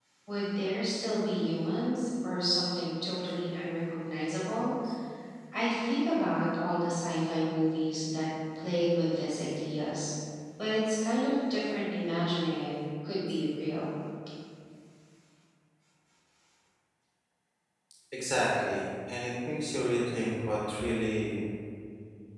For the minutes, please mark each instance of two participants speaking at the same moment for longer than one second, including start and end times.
none

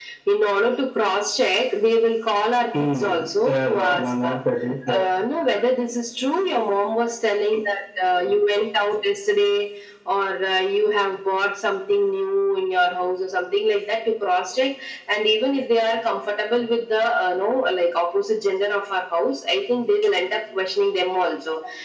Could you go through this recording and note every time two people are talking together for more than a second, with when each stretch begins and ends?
2.8-4.4

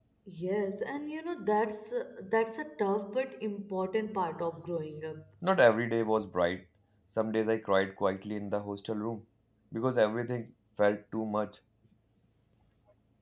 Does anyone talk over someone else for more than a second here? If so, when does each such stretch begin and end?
none

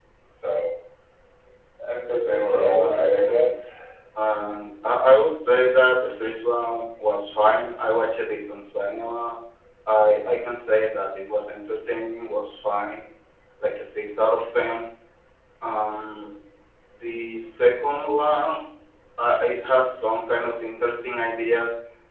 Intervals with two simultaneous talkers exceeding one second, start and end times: 2.1-3.5

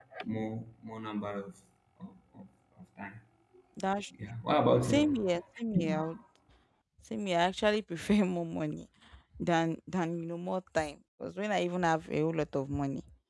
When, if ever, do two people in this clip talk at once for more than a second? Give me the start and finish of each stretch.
none

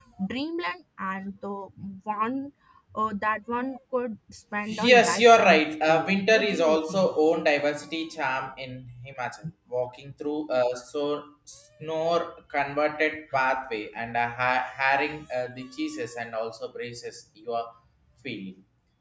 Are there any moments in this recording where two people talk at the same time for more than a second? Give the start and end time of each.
4.7-7.1

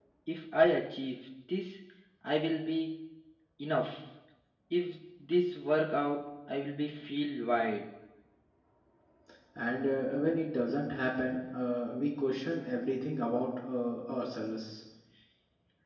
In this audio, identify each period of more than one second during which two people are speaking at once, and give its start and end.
none

